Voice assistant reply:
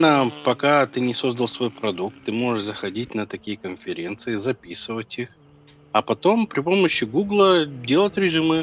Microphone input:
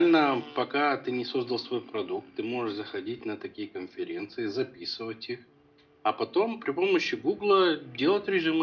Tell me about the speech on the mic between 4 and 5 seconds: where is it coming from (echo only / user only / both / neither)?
echo only